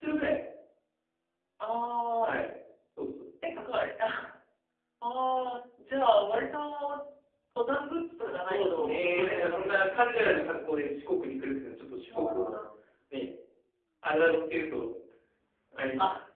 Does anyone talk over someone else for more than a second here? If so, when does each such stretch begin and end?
8.2-10.1

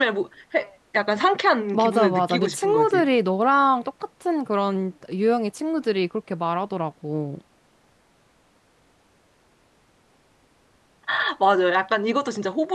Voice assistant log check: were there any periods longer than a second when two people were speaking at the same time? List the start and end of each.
1.7-3.1

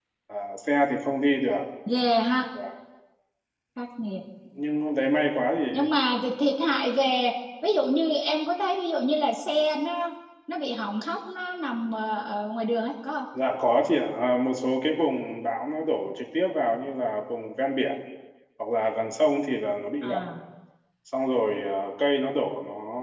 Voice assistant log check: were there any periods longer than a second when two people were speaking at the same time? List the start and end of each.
none

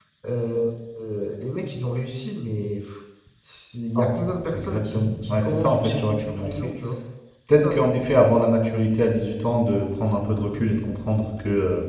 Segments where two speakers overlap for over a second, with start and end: 4.0-6.7

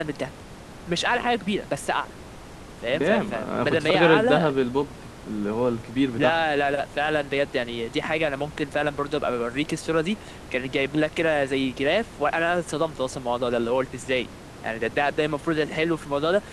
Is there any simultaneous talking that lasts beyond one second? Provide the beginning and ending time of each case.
2.9-4.5

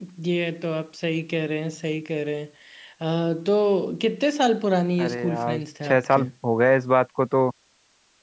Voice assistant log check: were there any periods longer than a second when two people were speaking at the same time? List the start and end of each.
5.0-6.2

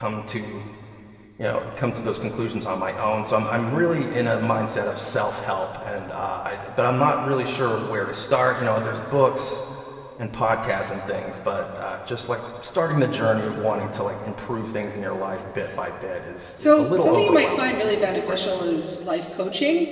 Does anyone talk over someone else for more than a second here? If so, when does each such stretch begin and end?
16.6-18.6

